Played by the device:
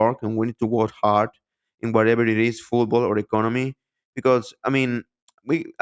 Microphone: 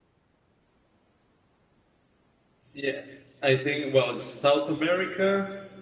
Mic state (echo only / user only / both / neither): user only